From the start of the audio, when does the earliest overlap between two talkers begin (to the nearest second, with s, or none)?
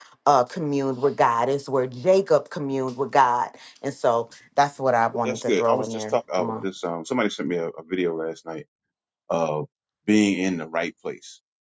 5 s